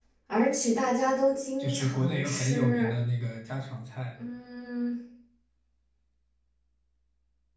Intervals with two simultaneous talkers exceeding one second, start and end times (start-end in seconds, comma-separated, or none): 1.6-2.9